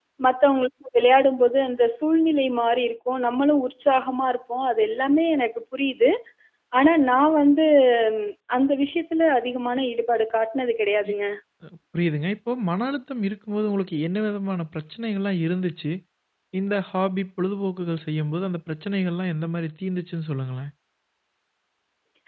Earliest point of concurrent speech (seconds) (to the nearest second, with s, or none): none